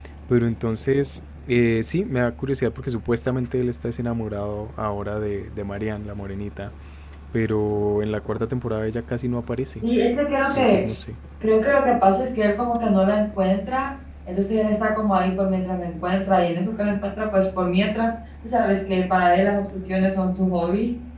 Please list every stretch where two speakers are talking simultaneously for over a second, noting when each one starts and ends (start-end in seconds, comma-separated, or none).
none